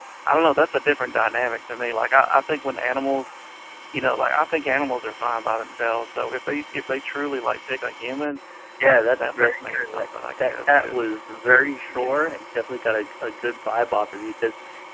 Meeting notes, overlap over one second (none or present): present